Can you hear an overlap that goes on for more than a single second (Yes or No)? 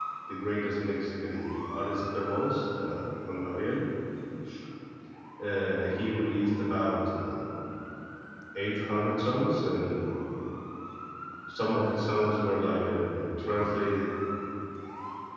No